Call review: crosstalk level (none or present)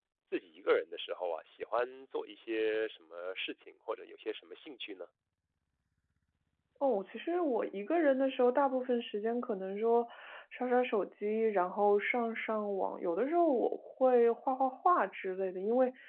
none